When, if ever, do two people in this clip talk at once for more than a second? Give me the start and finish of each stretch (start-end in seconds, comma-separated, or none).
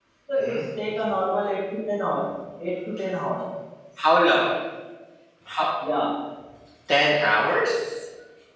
none